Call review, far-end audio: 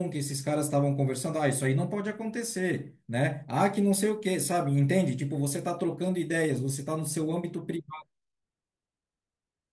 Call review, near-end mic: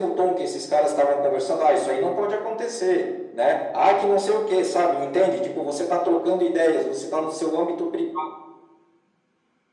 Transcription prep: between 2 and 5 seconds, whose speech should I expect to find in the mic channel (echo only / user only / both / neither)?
echo only